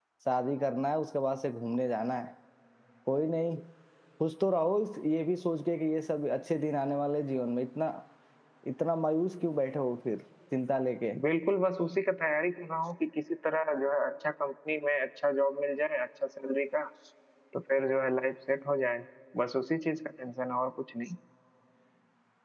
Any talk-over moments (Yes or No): No